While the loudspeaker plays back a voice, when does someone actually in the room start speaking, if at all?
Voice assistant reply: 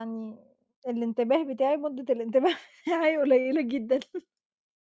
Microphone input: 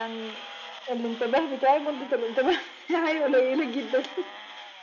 none

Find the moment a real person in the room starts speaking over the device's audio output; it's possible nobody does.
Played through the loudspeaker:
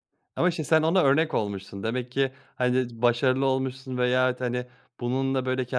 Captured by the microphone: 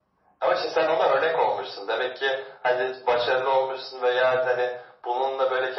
none

